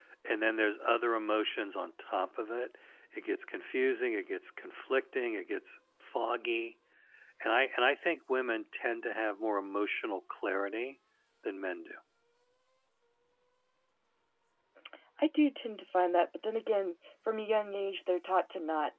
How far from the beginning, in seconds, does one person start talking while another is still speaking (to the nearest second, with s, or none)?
none